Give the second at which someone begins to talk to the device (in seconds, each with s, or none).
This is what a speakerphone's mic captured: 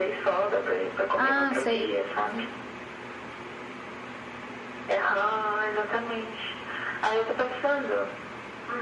1.2 s